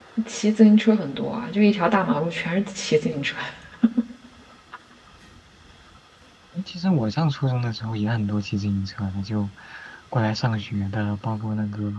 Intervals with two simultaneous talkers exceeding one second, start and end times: none

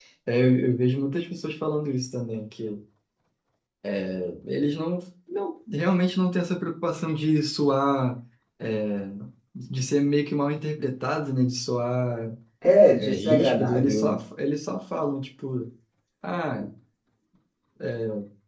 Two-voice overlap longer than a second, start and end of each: 13.0-14.2

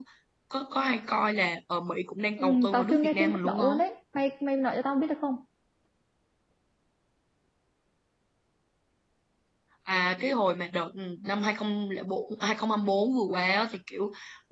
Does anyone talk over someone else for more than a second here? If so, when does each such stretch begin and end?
2.4-3.8

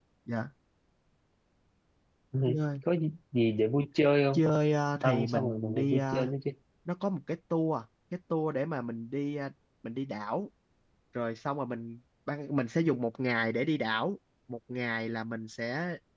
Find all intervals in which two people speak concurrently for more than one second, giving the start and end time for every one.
5.0-6.3

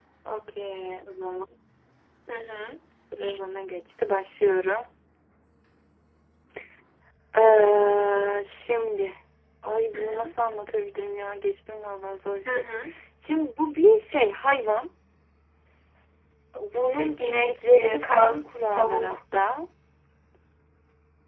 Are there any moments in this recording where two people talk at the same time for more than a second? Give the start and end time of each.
16.9-19.2

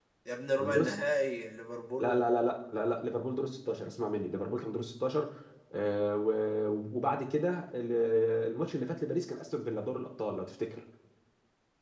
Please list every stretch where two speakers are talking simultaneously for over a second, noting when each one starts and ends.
none

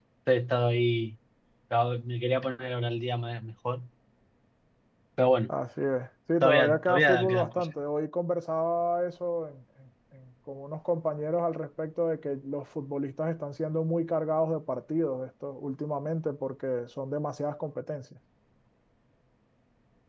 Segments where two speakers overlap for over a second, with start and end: 6.4-7.7

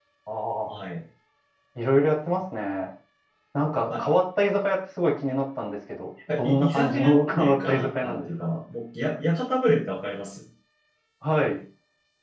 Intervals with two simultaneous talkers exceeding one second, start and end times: 6.4-8.6

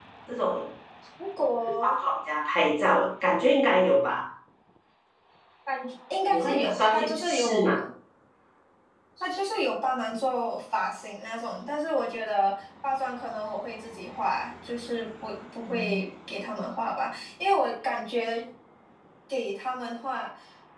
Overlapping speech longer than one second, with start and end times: 6.3-7.7

